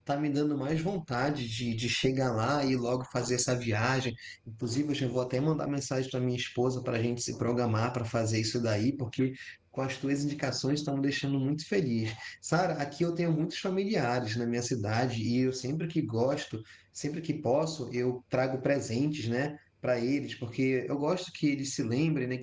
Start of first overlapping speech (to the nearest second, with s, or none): none